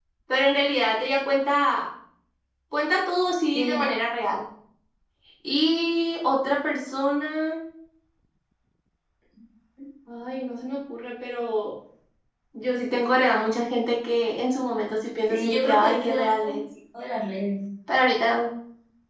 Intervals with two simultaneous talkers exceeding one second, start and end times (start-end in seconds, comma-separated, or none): 15.3-16.6